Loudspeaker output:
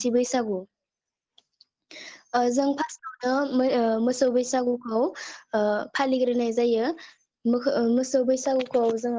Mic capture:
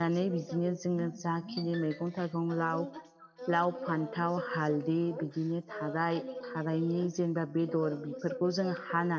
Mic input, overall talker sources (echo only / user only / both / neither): both